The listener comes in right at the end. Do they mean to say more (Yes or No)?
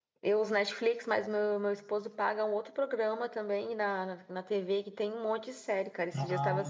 No